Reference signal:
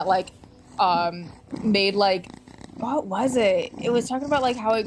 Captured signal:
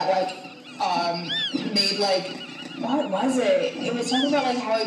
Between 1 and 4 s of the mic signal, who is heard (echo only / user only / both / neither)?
echo only